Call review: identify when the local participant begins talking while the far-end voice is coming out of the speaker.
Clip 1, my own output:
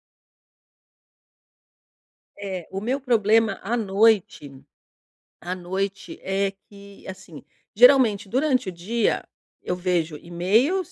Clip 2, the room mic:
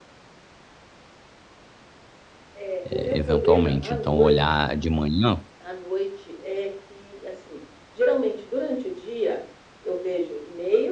2.9 s

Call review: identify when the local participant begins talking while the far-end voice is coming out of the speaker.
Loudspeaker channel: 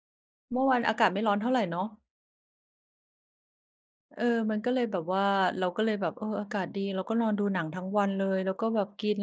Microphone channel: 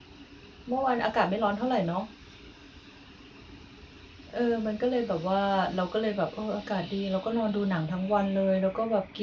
none

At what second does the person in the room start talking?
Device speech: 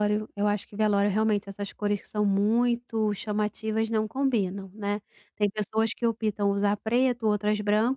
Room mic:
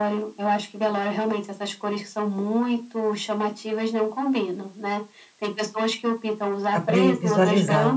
6.7 s

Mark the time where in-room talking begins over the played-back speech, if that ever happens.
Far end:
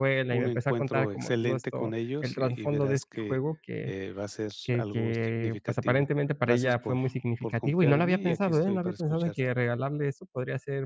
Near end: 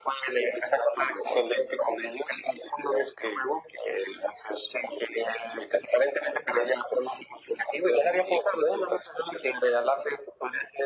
none

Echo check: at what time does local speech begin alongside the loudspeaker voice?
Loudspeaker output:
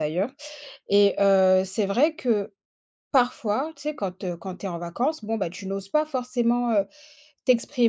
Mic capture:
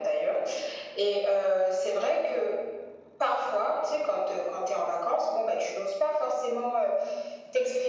none

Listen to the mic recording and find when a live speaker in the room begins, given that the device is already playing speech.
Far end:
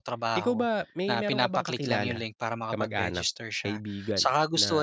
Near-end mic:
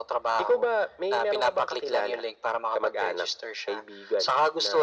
none

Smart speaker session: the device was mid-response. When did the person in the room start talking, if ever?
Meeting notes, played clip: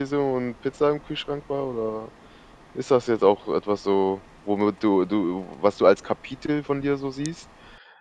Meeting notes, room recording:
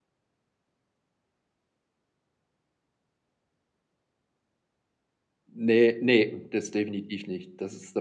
5.5 s

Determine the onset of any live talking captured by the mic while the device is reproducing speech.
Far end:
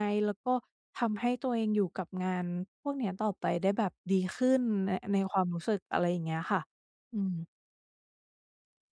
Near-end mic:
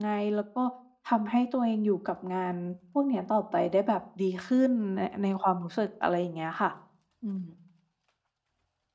none

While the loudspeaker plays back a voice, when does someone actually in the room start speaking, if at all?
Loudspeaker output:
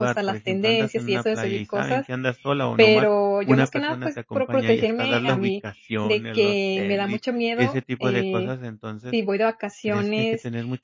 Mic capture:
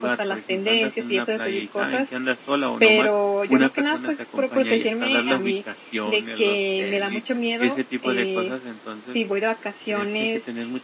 none

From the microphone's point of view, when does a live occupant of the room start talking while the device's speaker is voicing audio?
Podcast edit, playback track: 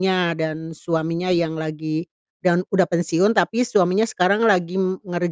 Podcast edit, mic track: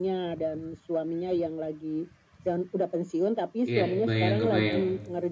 3.7 s

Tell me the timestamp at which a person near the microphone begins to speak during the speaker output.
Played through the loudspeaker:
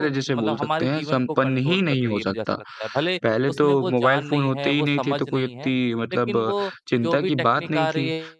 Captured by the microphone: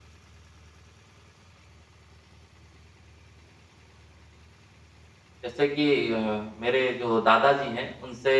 5.4 s

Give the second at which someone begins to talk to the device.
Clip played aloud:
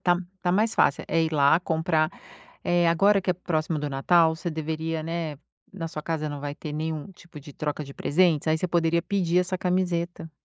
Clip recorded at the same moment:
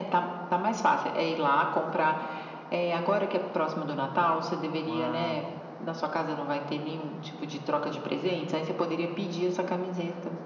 4.9 s

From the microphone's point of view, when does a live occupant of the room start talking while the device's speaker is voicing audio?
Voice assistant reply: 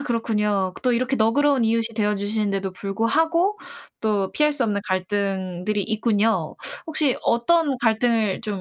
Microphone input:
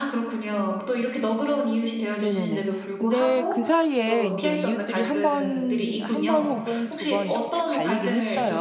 2.2 s

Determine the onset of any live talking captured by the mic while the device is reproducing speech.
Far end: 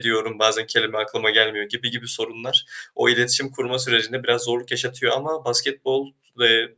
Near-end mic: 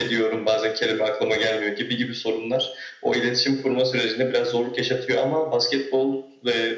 none

